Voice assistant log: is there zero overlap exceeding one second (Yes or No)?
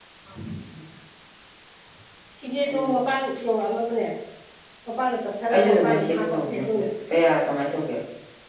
No